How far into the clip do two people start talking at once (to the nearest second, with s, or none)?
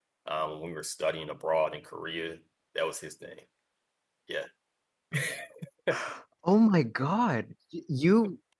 none